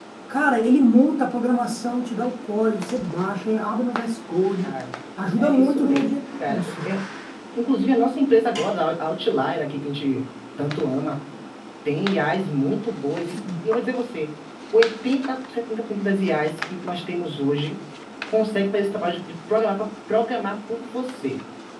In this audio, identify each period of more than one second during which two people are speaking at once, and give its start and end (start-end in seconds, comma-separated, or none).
5.4-6.7